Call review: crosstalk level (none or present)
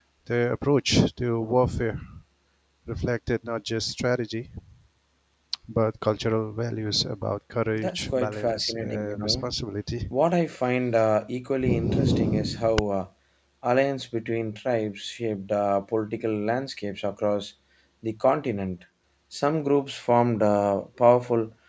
present